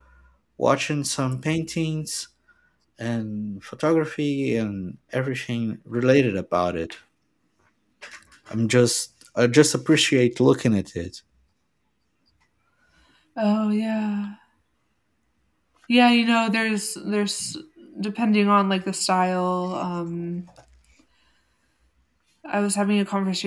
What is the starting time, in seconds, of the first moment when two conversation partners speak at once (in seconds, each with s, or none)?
none